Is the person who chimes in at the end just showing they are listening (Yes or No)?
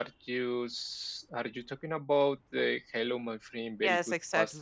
No